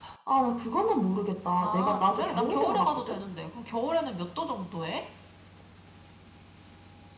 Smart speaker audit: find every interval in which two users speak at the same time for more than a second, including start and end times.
1.6-3.2

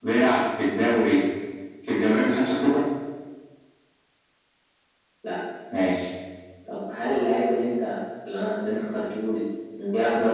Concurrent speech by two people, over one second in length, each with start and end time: none

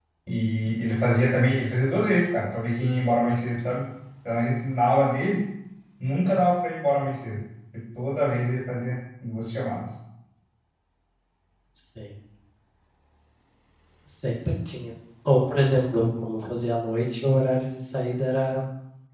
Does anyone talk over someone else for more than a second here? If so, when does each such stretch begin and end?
none

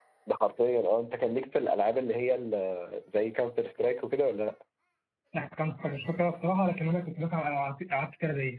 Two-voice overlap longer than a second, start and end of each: none

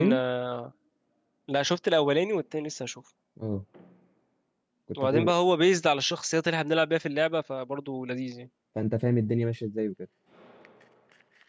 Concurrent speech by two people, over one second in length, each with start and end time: none

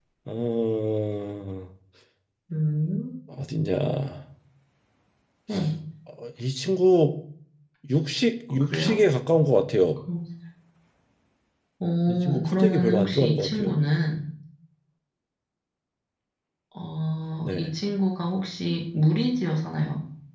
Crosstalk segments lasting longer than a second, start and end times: 12.1-13.8

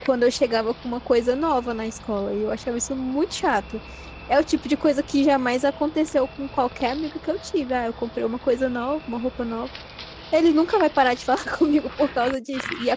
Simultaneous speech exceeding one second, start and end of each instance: none

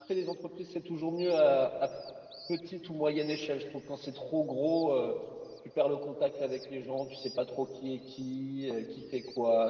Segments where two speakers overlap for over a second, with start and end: none

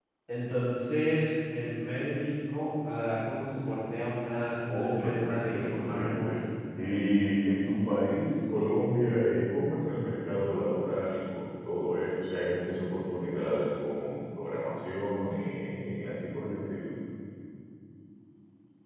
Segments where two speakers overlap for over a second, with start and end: 4.7-6.4

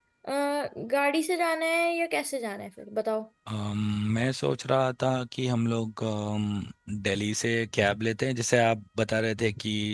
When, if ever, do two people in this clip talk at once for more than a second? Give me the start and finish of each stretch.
none

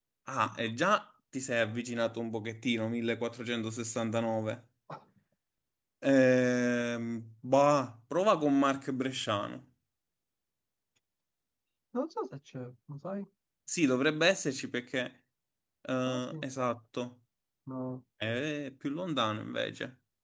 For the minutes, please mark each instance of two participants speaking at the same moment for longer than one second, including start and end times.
none

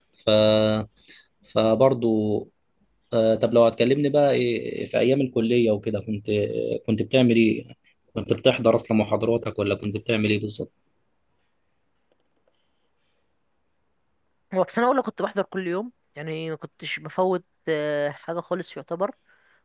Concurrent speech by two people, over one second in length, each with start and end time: none

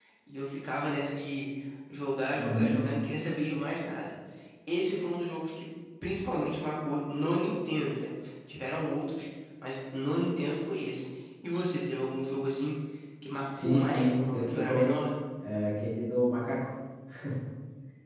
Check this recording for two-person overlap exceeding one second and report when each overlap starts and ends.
13.6-14.9

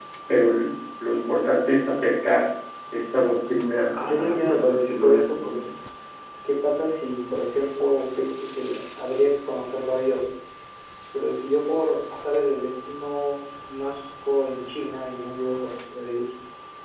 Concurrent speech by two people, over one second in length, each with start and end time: 4.0-5.6

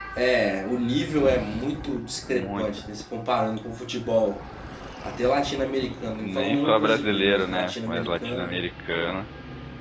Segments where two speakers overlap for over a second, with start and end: 6.2-8.6

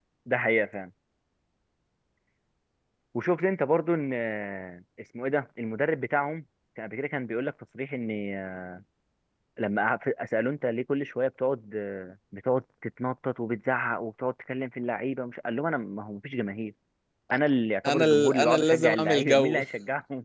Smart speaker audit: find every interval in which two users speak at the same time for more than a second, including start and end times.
17.8-19.6

